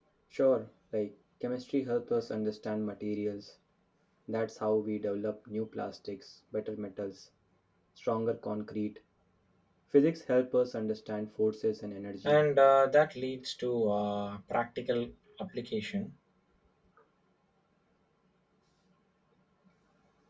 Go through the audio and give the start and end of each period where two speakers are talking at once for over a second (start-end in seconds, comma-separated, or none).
none